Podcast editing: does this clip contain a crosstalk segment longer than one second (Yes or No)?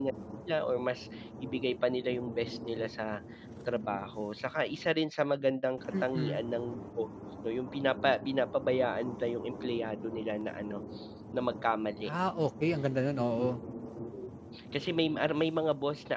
No